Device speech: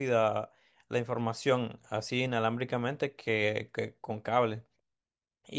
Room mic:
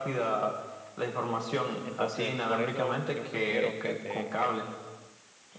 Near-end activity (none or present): present